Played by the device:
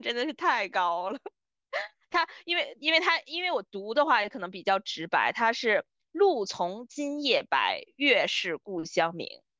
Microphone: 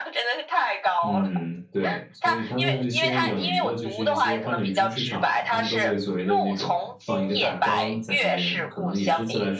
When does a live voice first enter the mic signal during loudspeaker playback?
1.0 s

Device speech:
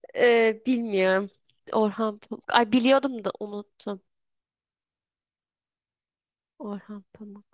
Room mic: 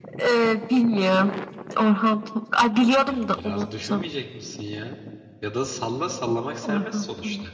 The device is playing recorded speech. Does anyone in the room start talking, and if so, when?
3.0 s

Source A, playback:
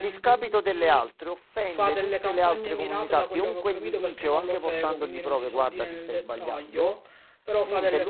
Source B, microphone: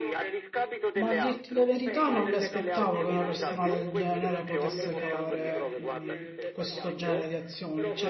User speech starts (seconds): 0.9 s

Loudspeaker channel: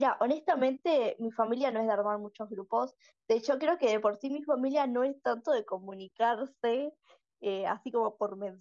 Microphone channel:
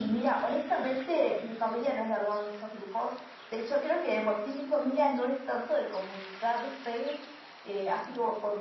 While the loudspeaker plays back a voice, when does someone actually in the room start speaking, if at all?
none

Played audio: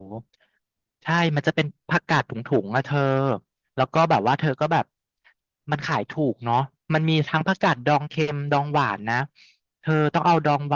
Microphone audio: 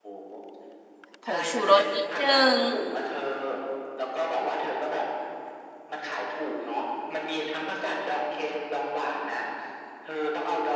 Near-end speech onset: 1.2 s

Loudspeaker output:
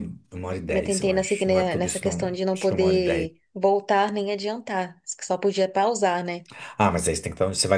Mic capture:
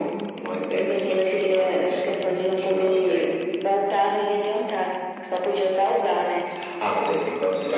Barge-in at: none

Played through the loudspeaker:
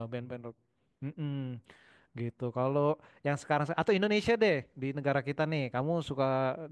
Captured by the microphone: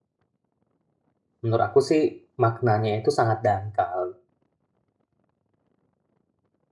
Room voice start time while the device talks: 1.4 s

